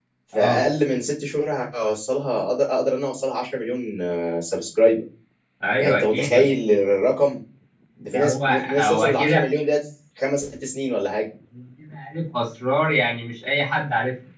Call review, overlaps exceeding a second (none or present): present